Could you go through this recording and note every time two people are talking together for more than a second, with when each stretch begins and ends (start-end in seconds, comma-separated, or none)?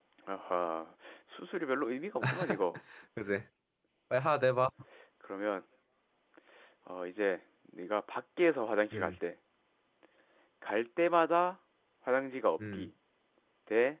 none